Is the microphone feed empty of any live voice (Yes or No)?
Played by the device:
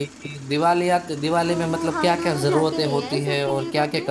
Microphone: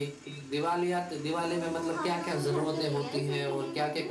Yes